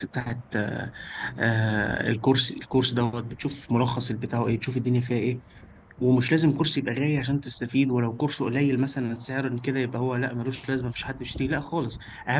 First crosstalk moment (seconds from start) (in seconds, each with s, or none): none